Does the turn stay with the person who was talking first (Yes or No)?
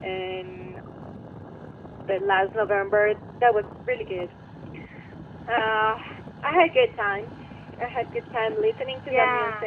Yes